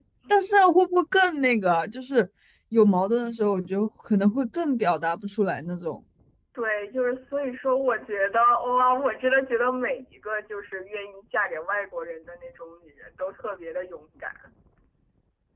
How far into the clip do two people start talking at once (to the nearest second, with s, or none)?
none